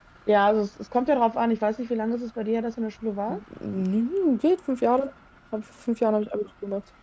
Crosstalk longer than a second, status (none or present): none